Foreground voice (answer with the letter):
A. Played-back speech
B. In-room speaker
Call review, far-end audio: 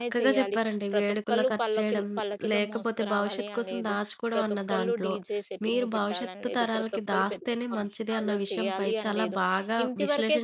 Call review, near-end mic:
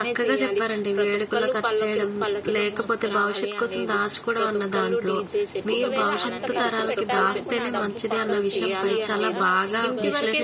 A